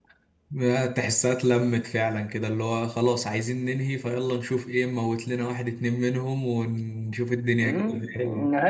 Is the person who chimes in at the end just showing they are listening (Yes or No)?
No